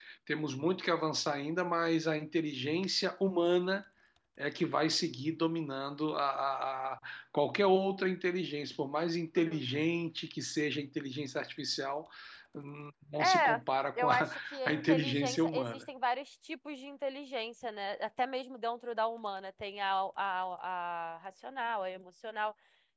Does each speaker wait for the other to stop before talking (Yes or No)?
No